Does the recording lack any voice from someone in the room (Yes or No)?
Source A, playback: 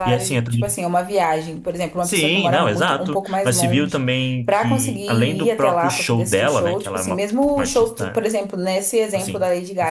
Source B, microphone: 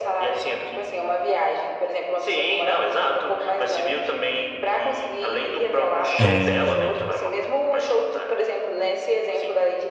No